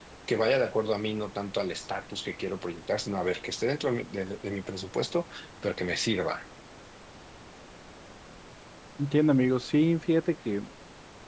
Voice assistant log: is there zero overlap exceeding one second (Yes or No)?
Yes